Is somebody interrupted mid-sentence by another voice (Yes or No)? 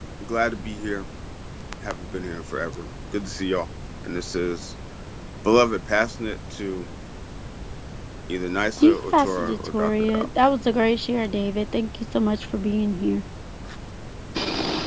Yes